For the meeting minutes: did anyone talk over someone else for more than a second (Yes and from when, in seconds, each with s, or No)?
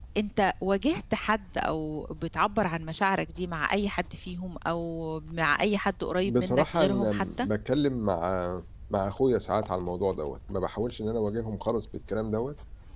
Yes, from 6.2 s